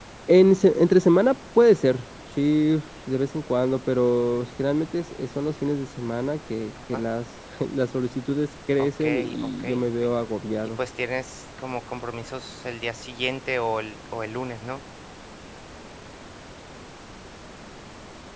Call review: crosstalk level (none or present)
present